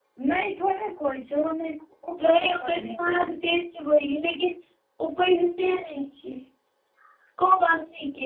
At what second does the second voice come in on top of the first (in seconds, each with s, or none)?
2.2 s